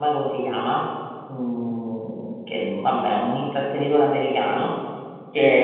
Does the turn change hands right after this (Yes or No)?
No